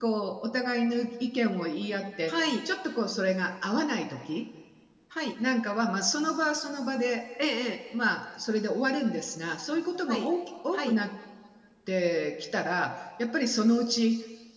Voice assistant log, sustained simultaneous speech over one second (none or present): none